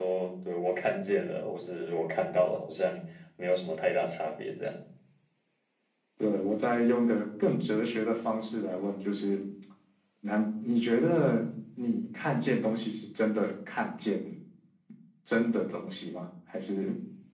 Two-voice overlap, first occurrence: none

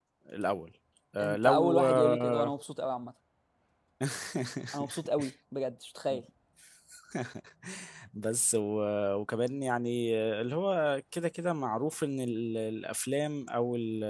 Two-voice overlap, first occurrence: 1 s

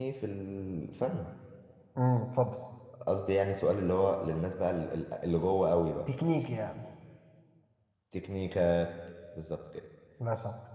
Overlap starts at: none

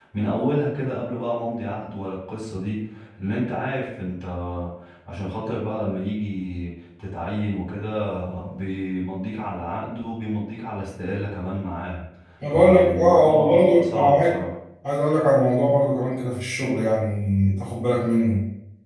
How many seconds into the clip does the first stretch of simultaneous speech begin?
13 s

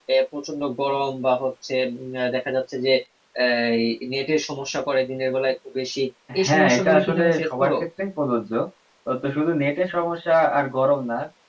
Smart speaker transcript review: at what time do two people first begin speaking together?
6 s

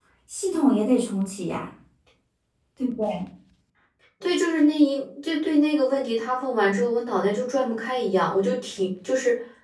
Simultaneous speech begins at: none

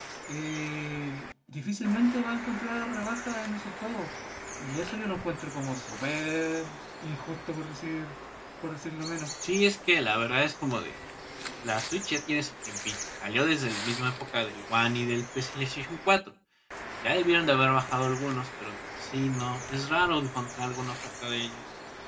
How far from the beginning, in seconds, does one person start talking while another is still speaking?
none

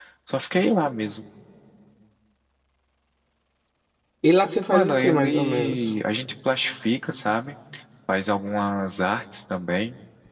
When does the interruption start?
5 s

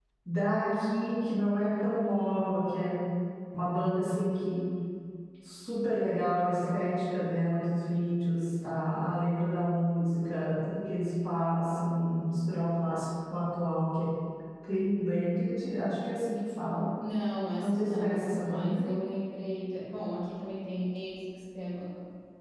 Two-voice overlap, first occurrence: 18 s

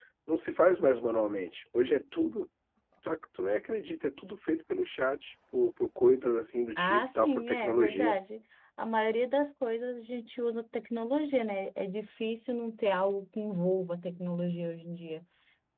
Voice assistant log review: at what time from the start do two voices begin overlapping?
7 s

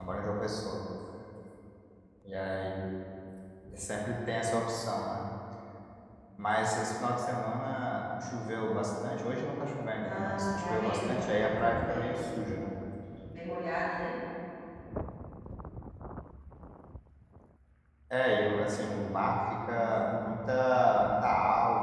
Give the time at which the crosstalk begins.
10 s

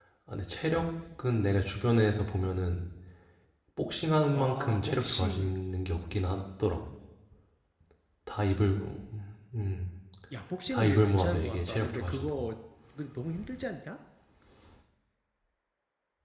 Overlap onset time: 4 s

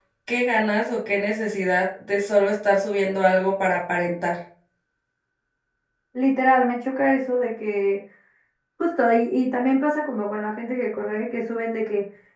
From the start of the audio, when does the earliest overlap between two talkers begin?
none

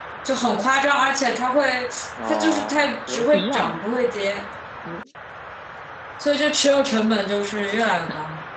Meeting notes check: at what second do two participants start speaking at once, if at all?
2 s

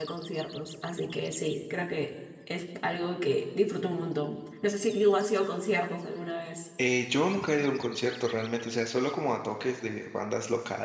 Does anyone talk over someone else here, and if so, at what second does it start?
none

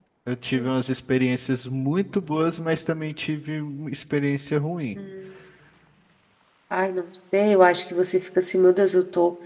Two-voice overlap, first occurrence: none

